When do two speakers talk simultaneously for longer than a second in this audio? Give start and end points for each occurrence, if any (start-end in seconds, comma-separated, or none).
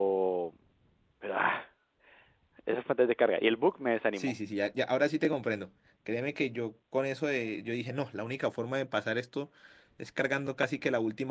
none